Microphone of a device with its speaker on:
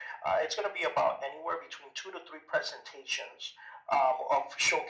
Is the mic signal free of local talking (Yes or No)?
Yes